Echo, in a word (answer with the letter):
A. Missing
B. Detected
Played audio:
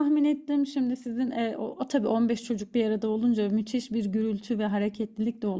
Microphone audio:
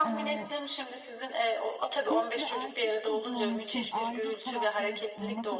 B